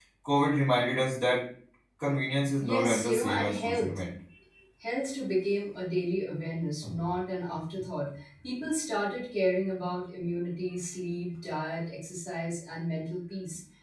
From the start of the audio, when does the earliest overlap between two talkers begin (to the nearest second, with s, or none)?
3 s